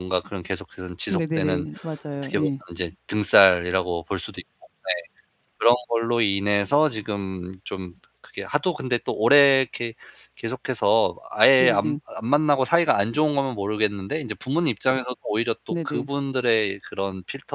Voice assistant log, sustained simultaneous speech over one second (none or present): none